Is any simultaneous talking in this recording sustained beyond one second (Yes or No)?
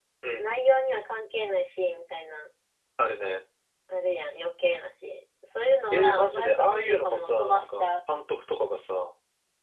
Yes